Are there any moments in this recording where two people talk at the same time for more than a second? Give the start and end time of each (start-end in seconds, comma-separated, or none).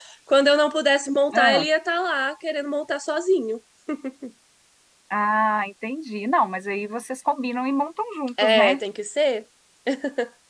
none